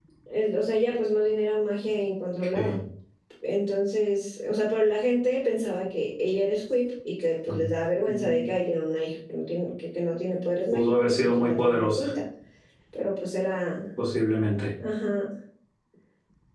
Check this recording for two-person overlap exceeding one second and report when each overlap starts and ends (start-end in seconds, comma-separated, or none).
10.7-12.0